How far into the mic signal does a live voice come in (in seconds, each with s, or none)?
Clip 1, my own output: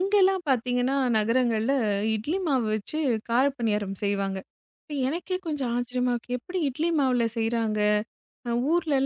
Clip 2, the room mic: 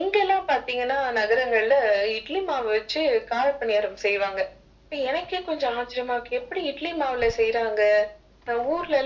none